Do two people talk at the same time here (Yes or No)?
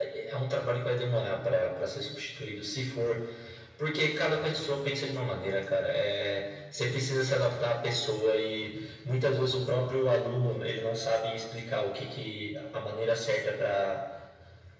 No